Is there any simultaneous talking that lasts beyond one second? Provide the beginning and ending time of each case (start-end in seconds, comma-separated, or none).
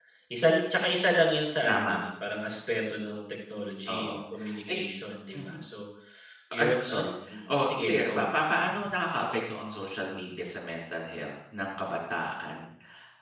6.5-8.3